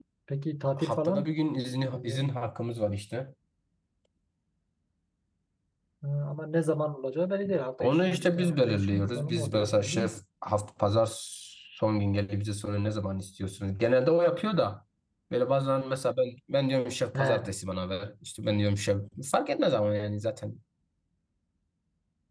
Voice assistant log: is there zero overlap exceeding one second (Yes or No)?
No